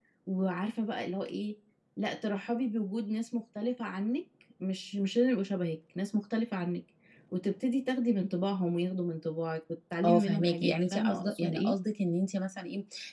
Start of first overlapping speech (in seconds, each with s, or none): 10.0 s